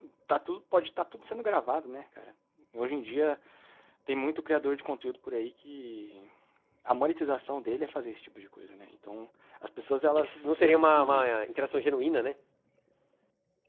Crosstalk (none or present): present